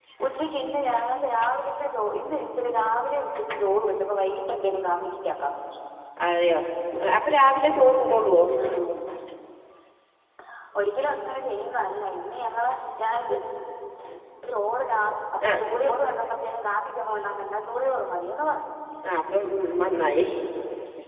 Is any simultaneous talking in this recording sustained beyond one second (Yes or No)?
No